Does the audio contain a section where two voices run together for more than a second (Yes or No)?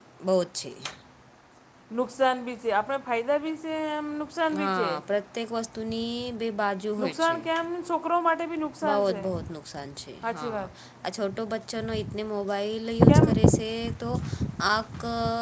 No